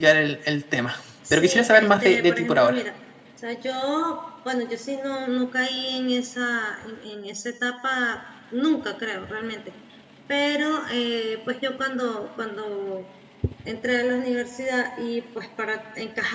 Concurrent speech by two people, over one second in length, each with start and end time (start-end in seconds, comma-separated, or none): 1.3-2.8